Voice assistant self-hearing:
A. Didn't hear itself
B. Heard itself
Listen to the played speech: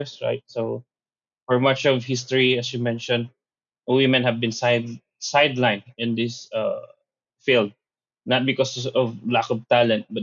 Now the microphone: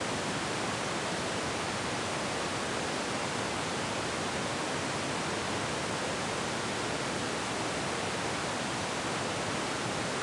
A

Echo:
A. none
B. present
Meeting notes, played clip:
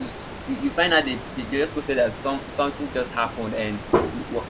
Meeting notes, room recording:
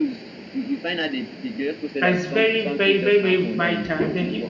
B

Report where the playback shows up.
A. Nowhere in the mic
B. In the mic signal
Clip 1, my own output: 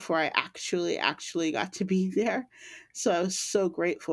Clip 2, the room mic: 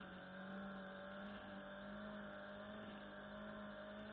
A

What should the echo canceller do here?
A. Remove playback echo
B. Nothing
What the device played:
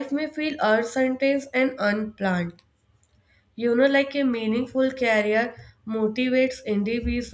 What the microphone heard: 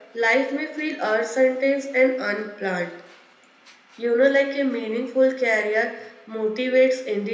A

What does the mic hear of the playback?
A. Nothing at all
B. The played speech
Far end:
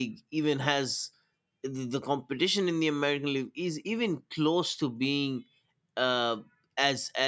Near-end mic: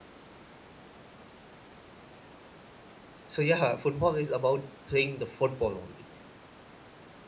A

